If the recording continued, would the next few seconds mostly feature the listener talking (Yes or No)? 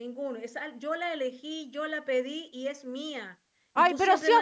Yes